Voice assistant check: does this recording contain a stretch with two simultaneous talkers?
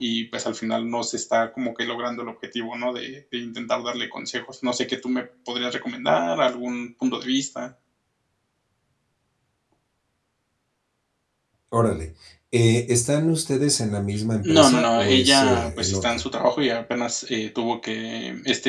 Yes, from 14.4 s

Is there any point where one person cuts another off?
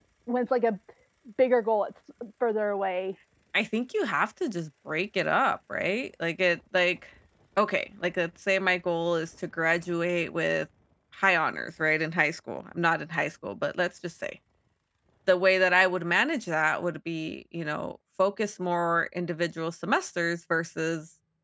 No

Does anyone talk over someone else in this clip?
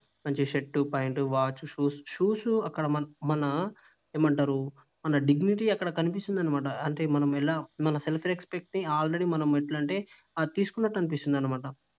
No

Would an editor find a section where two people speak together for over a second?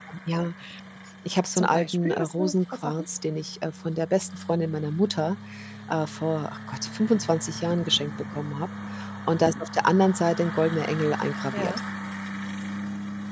Yes, from 1.6 s

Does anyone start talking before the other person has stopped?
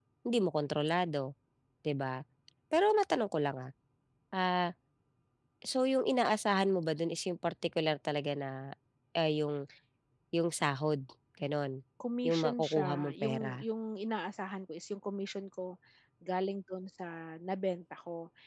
Yes, from 12.3 s

